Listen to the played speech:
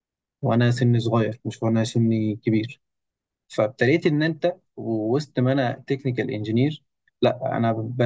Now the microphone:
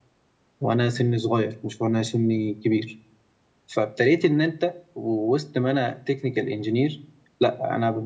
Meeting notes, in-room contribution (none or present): none